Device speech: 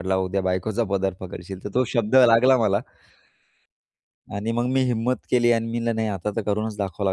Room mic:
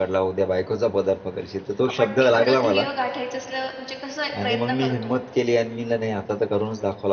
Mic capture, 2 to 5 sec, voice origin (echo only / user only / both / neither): both